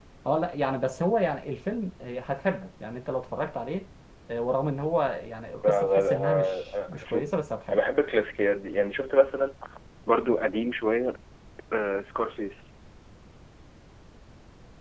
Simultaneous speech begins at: 5.6 s

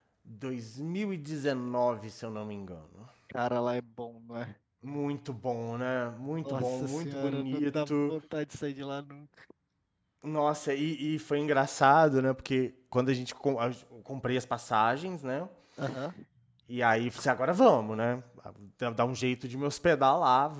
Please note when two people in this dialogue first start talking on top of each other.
6.5 s

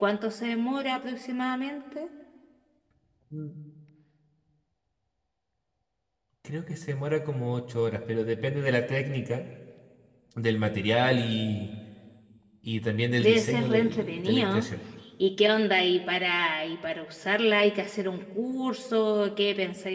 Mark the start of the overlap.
13.2 s

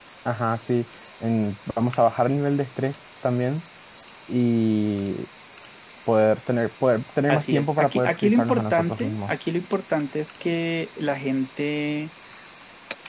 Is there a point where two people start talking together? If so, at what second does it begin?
7.3 s

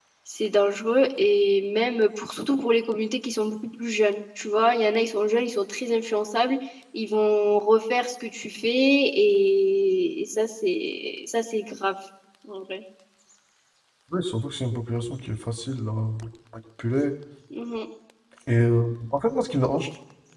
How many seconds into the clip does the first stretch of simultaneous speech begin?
none

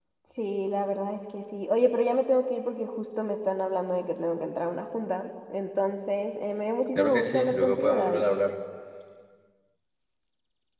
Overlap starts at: 7.0 s

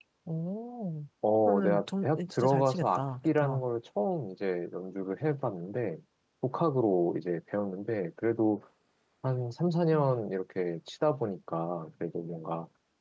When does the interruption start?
1.5 s

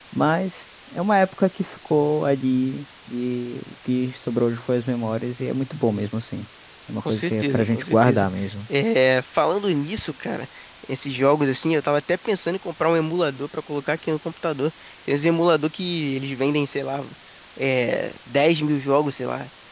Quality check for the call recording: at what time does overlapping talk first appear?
7.0 s

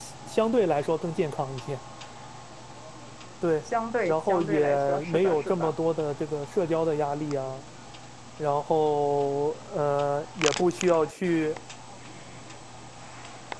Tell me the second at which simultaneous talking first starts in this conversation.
4.0 s

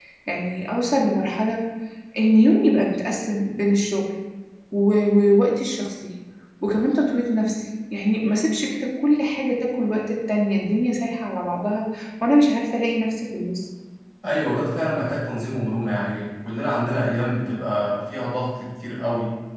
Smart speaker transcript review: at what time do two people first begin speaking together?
none

